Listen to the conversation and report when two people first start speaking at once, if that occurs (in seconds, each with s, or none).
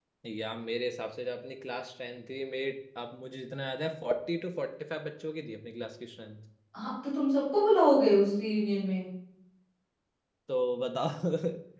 none